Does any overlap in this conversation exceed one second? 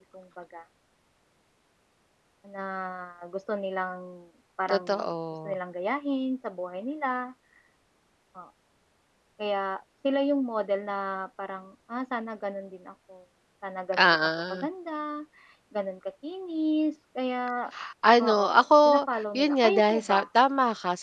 Yes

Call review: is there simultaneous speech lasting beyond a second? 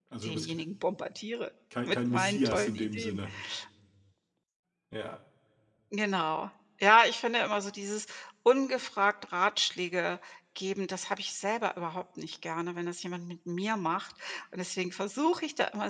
Yes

